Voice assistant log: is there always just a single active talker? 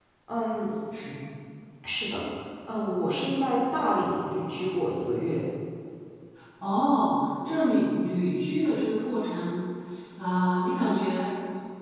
Yes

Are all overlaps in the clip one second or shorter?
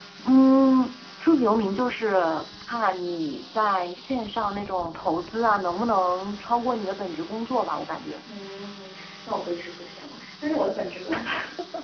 Yes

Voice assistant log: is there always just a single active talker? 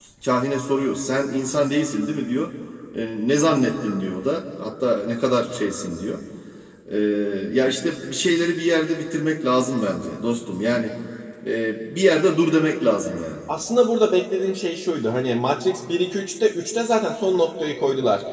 Yes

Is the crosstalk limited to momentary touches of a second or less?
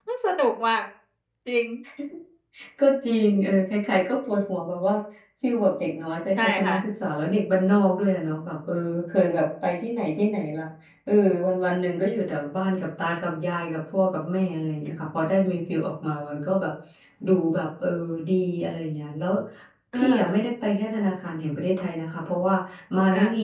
Yes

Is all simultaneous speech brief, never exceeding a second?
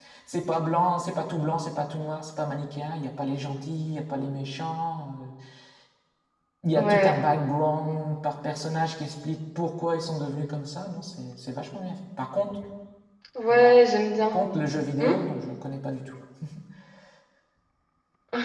Yes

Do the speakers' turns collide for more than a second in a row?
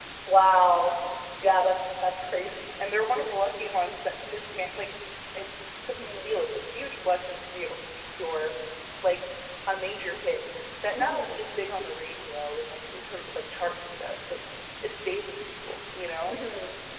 No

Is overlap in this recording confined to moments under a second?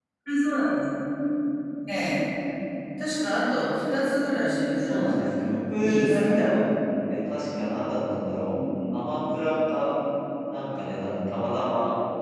No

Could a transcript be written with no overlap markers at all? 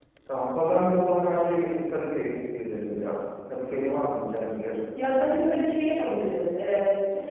Yes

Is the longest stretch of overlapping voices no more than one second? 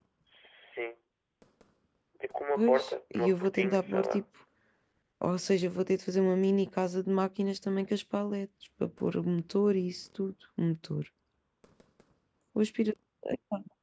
No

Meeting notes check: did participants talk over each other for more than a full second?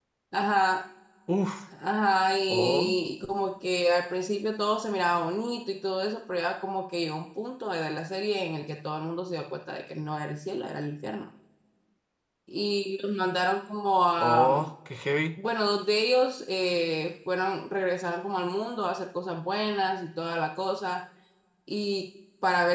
No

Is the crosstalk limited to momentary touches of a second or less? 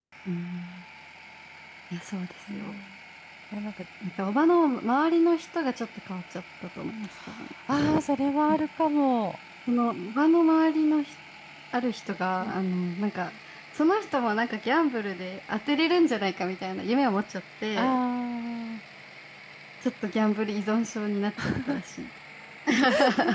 Yes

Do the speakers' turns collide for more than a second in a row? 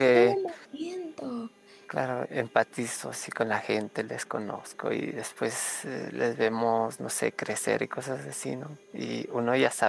No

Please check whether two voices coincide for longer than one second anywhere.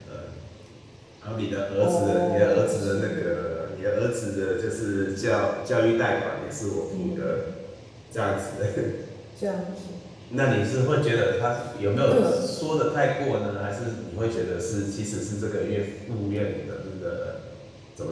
Yes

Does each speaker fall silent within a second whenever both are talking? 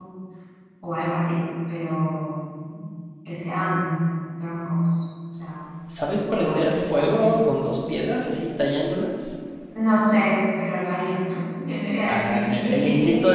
No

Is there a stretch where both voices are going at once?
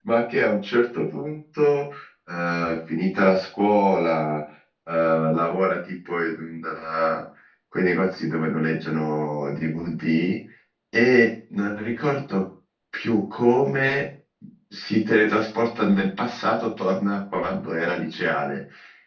No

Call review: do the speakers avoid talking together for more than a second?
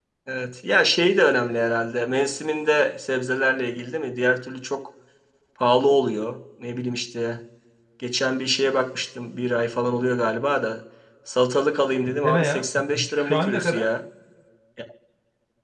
No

